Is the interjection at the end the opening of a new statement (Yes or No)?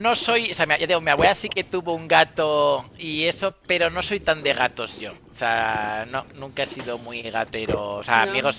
No